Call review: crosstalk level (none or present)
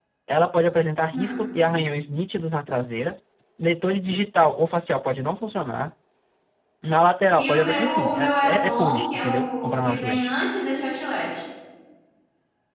present